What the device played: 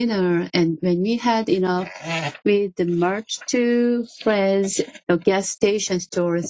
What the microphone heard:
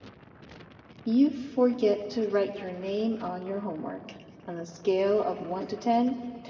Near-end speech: present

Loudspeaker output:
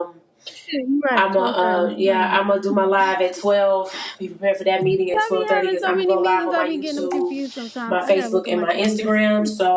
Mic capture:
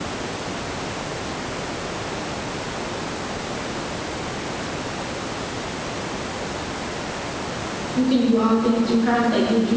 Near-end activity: present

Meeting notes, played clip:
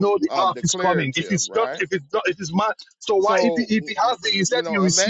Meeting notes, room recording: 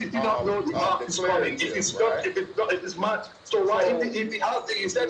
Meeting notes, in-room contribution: none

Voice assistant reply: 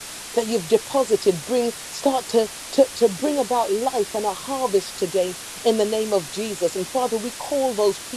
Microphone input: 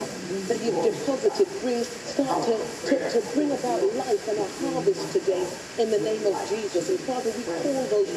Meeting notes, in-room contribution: present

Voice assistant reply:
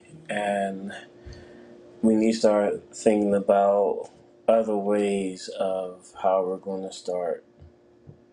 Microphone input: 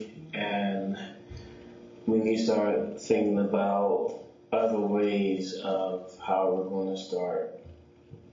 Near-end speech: none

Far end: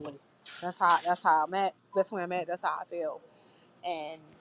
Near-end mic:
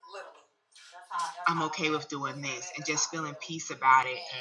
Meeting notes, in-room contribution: present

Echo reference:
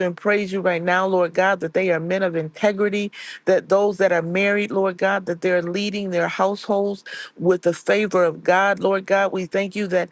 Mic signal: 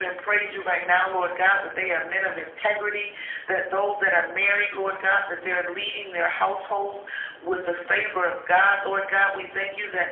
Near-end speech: none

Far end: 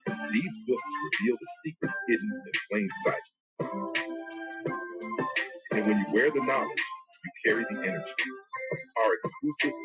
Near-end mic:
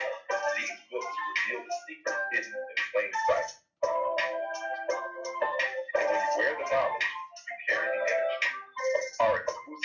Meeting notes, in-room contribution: none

